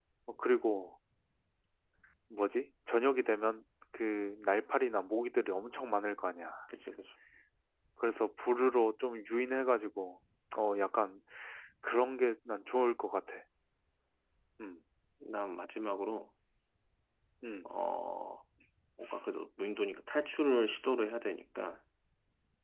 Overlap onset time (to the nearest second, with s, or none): none